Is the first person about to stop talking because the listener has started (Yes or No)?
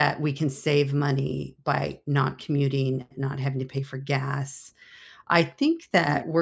No